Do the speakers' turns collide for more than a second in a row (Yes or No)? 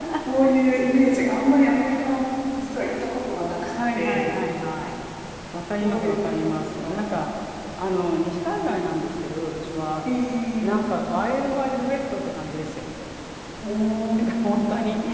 Yes